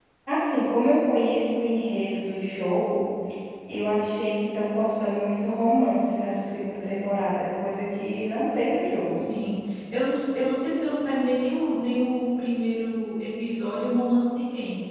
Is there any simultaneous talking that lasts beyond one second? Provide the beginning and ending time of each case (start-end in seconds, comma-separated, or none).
none